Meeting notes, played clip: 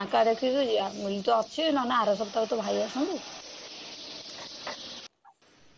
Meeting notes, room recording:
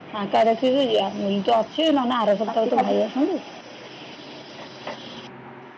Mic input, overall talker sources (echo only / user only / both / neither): both